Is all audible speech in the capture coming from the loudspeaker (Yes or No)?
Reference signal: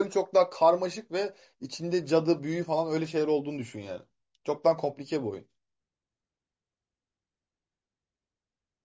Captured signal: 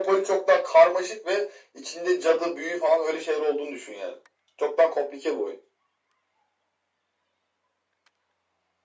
Yes